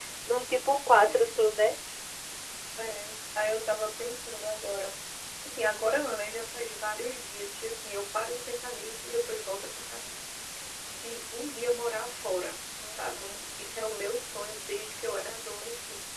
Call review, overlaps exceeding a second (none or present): none